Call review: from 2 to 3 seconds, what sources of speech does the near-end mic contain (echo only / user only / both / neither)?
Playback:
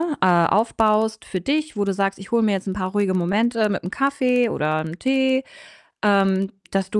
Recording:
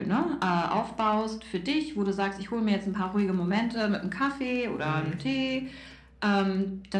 echo only